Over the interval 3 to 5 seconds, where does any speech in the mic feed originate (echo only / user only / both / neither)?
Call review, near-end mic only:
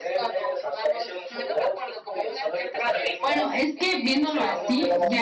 both